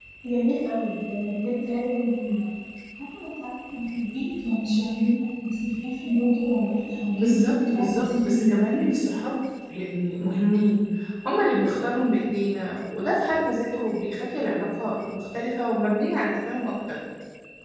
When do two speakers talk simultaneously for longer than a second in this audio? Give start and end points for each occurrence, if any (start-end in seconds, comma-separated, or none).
7.2-9.1